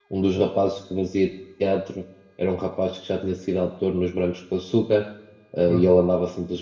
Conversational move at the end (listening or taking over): listening